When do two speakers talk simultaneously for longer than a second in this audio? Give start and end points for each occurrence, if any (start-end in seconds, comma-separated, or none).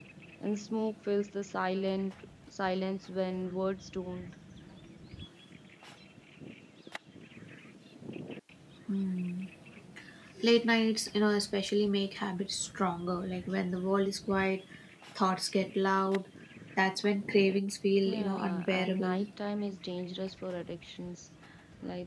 18.1-19.3